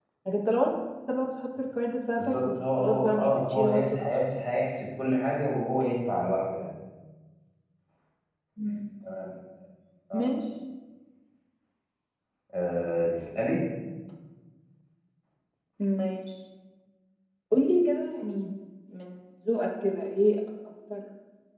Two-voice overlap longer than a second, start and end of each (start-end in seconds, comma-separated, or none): 2.2-3.8